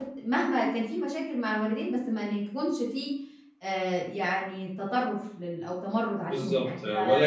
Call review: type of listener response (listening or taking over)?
taking over